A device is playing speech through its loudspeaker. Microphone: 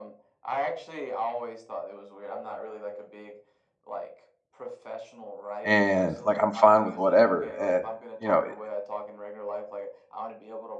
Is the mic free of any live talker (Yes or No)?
No